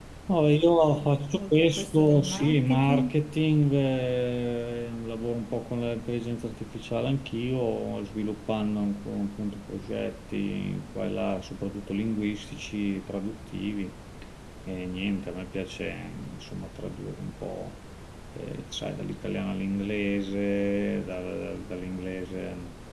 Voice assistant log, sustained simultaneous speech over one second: present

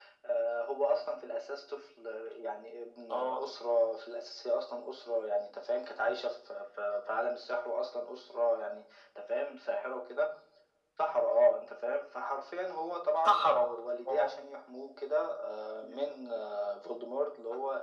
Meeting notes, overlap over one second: none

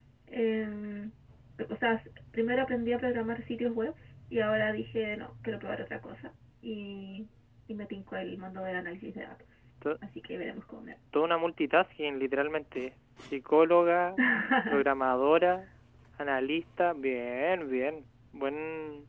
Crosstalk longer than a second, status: none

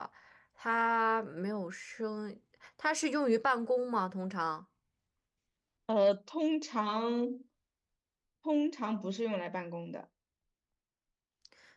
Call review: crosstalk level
none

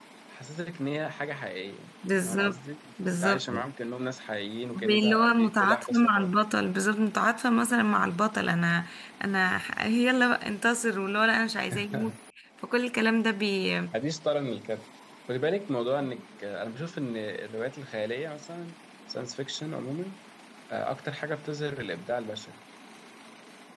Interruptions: present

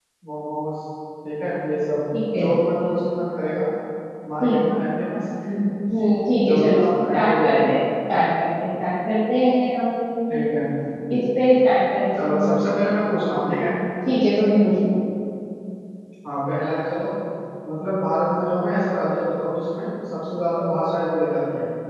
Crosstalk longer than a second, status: present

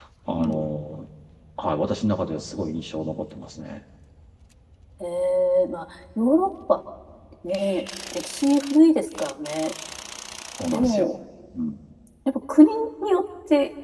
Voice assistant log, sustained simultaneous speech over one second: none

